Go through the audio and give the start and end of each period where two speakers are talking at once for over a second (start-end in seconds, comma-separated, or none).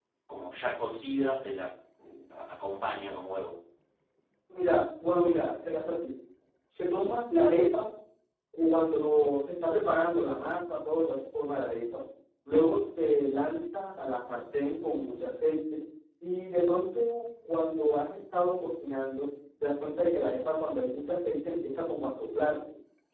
none